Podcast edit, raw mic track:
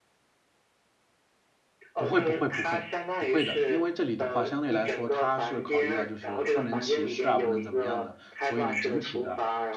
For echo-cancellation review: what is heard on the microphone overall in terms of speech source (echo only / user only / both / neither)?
both